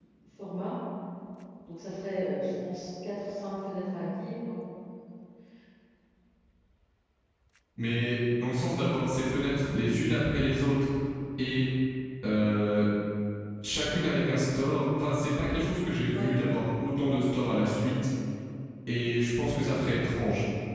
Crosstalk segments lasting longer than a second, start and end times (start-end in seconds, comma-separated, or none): none